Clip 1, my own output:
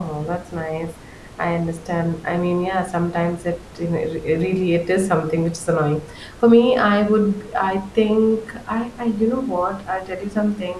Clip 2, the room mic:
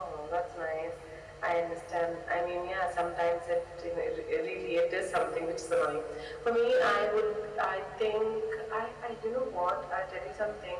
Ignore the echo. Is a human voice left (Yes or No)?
No